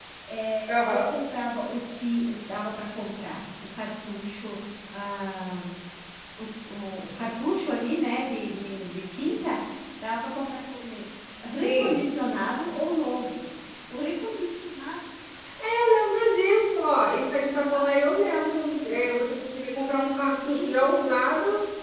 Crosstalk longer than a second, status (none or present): none